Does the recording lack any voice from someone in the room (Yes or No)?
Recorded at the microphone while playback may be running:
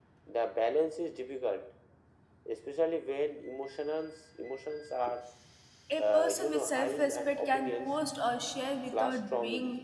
No